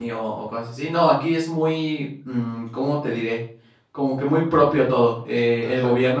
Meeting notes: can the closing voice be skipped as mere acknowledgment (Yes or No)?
Yes